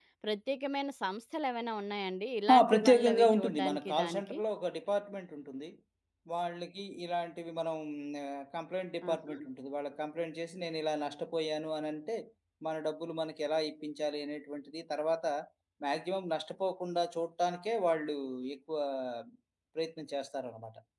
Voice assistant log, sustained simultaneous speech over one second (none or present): present